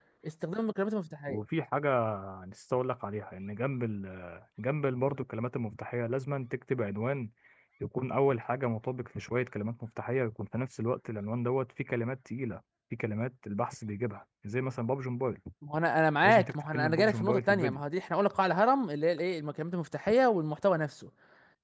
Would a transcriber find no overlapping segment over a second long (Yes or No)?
No